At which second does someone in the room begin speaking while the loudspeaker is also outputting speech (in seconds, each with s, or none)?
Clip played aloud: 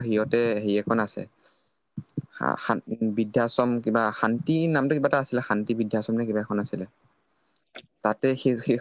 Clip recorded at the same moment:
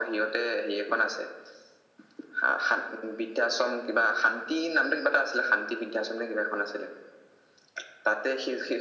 none